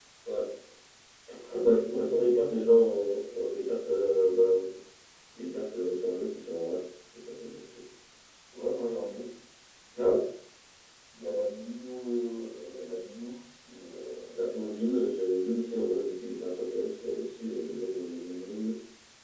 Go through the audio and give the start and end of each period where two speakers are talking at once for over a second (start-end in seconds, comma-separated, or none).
1.9-3.2